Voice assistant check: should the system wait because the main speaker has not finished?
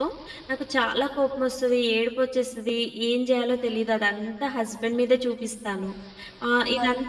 Yes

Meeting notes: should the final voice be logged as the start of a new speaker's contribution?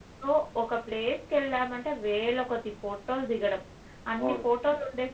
No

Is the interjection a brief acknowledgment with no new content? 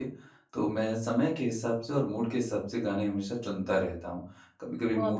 Yes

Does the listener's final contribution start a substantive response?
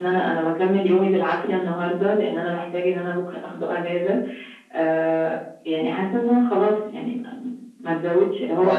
Yes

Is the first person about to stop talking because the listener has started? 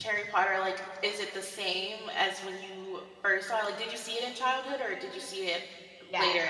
Yes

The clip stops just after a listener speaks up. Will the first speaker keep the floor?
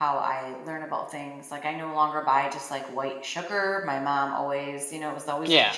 Yes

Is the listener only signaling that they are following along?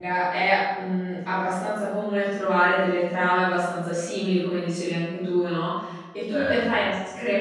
Yes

